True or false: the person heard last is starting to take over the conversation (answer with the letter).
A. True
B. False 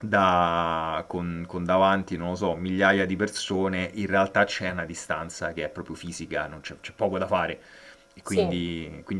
B